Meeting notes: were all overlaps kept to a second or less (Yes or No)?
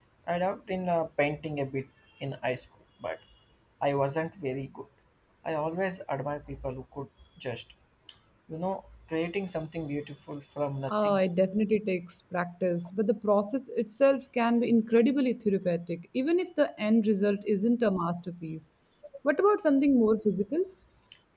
Yes